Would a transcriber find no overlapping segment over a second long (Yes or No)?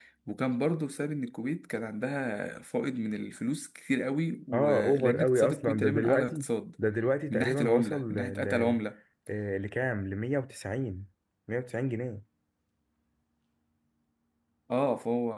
No